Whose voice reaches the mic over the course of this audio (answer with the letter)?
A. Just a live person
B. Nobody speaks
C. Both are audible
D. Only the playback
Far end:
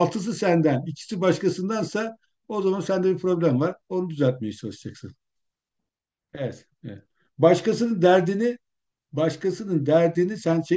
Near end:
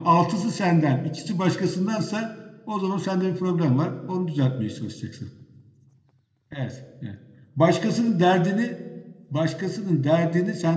D